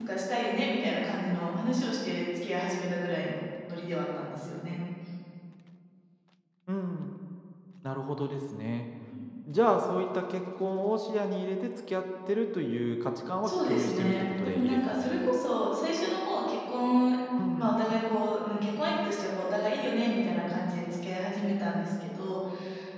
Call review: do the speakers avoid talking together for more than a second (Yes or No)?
No